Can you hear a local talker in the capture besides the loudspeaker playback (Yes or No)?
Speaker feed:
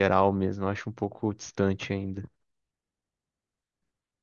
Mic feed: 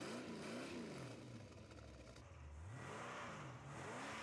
No